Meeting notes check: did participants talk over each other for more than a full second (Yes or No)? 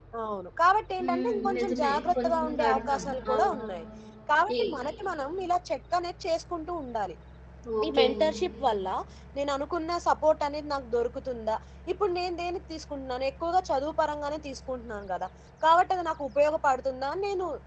Yes